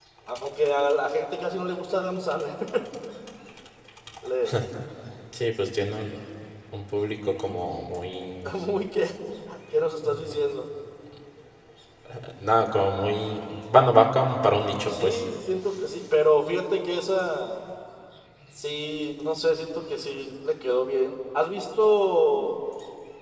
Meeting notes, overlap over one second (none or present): none